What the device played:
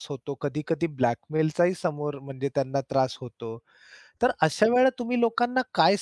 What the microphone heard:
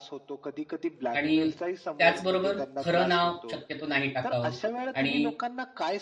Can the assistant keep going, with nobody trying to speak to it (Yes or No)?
No